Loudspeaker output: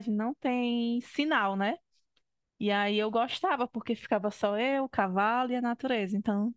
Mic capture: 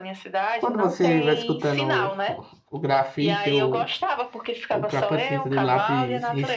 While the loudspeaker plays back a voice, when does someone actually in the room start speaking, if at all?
0.5 s

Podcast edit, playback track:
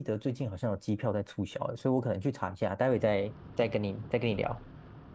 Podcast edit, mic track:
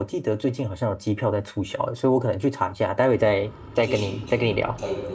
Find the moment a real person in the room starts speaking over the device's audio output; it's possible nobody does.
3.8 s

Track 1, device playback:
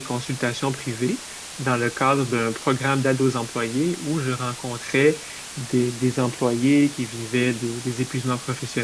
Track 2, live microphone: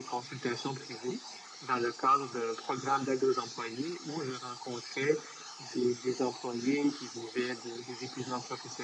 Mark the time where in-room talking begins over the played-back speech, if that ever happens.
none

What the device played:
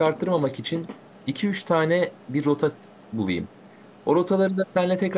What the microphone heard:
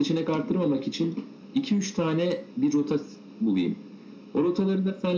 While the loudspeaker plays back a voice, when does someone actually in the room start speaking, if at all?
none

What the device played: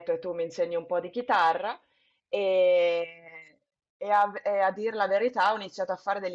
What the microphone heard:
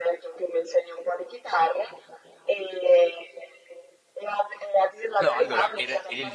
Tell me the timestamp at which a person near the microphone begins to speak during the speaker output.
5.2 s

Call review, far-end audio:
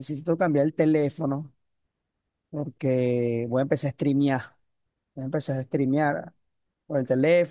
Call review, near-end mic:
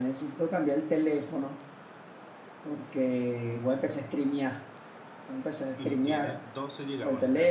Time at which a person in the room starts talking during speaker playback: 5.7 s

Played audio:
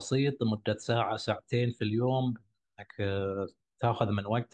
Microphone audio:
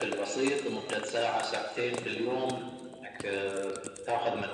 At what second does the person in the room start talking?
none

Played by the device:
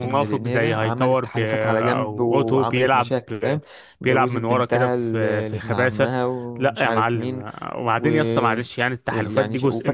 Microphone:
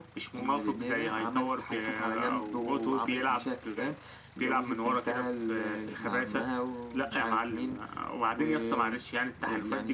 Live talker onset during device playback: none

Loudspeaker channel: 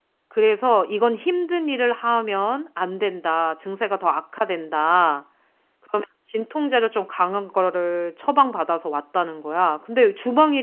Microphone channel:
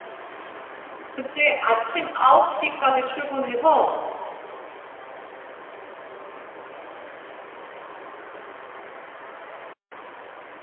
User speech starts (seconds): 1.1 s

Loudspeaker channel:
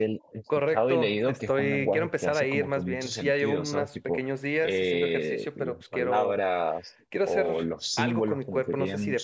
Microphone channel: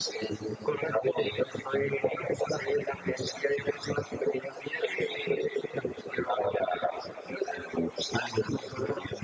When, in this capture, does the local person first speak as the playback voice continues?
none

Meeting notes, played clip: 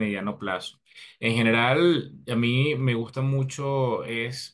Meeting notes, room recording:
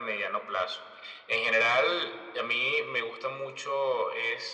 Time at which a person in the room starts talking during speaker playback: none

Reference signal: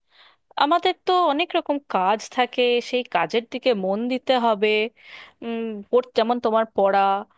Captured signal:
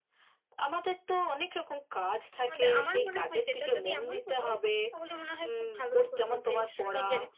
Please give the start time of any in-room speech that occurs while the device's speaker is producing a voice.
2.4 s

